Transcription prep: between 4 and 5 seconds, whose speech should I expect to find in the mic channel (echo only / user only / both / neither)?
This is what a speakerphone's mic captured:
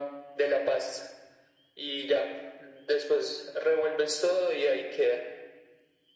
echo only